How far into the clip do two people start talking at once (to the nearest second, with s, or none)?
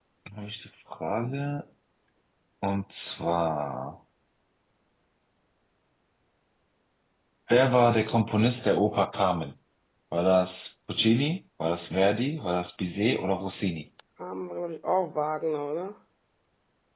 none